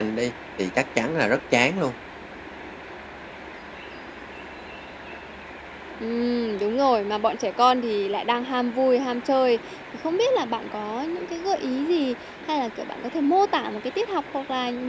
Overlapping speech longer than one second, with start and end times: none

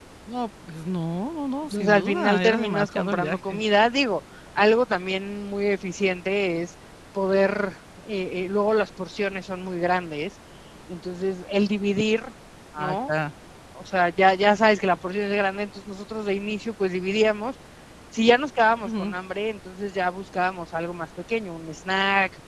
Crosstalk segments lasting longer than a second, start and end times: 1.6-3.6

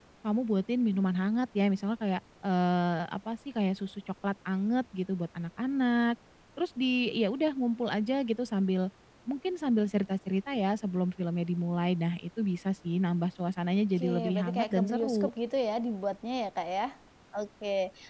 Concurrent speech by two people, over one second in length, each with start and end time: 13.9-15.3

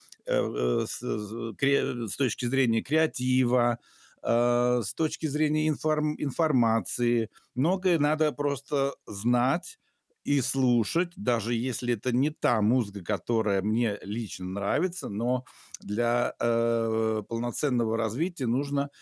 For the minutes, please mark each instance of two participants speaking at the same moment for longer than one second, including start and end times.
none

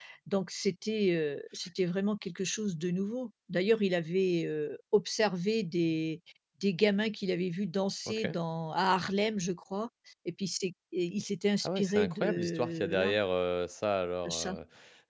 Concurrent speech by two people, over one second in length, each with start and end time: 11.6-13.2

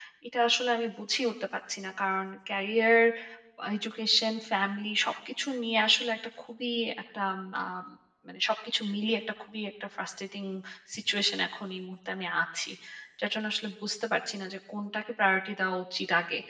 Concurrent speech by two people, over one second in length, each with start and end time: none

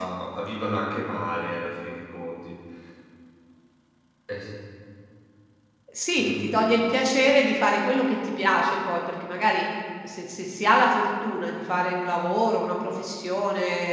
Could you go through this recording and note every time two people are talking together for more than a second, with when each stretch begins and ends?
none

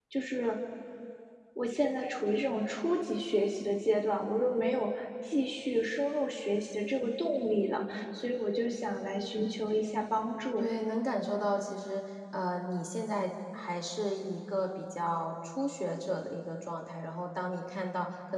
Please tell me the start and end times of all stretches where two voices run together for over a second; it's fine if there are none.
none

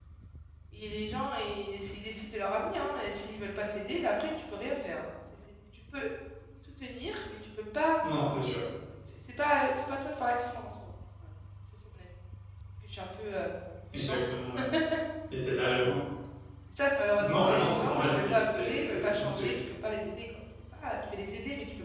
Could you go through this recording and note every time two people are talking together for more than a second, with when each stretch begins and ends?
17.2-19.6

